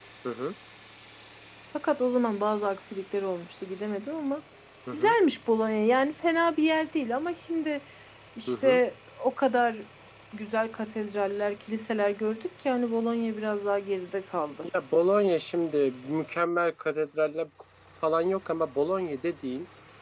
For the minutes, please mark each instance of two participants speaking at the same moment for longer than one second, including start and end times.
none

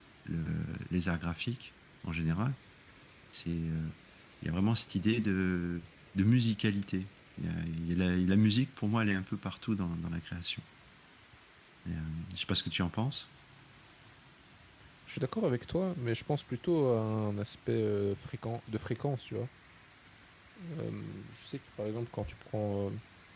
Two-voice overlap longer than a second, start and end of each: none

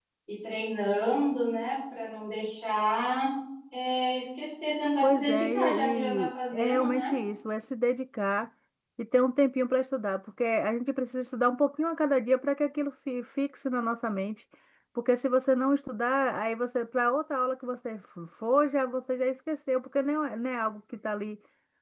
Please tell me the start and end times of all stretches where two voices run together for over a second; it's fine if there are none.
5.0-7.2

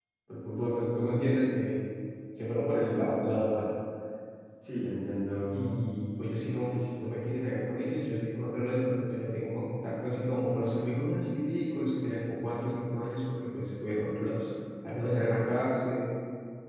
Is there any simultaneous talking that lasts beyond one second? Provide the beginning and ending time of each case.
none

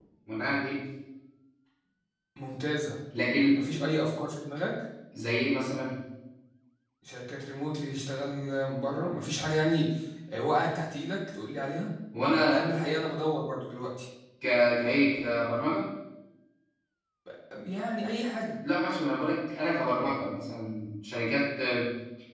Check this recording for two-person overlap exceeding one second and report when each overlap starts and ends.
none

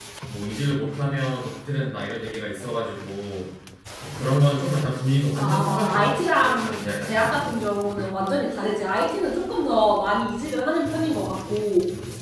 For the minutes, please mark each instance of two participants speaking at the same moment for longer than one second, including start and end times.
5.4-7.5

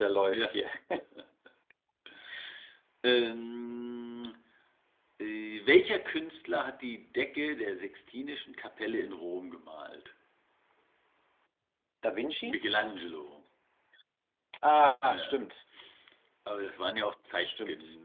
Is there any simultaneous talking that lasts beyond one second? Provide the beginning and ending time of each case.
none

